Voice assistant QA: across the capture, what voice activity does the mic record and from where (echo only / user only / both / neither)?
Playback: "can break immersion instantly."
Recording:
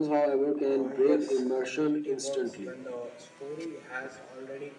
both